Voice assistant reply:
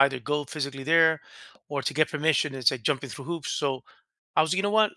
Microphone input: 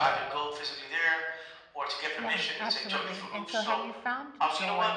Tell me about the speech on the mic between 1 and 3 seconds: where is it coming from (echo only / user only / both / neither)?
both